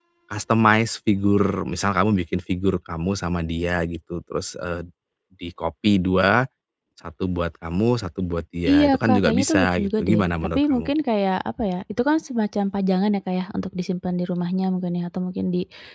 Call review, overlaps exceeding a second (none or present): present